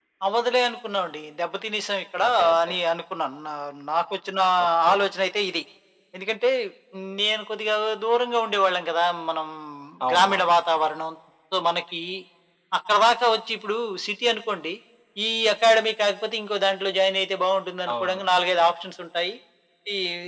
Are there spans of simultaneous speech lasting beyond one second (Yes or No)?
No